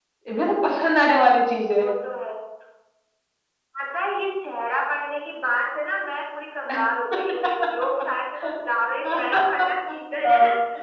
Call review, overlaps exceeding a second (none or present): none